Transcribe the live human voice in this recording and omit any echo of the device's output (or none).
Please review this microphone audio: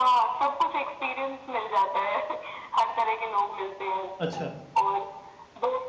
अच्छा